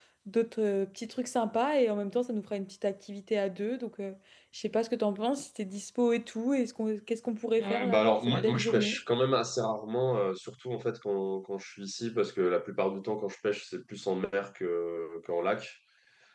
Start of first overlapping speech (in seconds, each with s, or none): 7.6 s